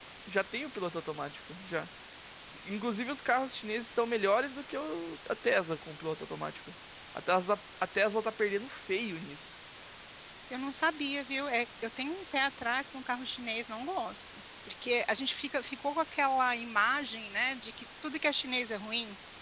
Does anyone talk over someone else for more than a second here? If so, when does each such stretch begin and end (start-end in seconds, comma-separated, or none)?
none